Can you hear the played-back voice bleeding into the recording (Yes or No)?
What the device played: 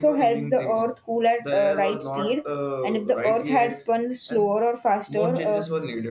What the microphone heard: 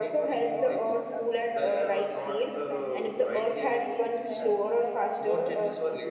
Yes